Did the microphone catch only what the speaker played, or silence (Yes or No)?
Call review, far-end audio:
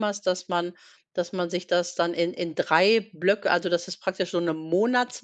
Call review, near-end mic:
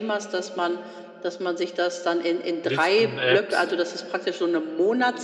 No